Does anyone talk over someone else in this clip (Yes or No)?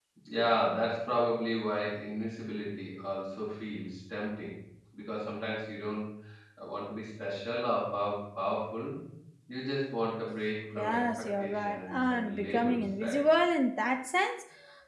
Yes